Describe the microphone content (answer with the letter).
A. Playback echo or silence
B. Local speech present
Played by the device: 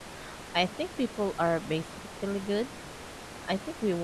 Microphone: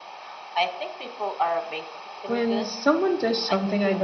B